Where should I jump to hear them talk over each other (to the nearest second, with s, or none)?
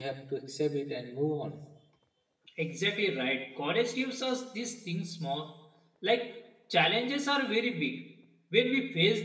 none